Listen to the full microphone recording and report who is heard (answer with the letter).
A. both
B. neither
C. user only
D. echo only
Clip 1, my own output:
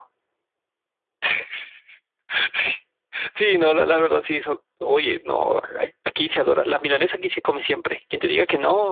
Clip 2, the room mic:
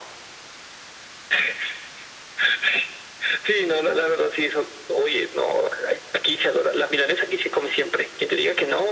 D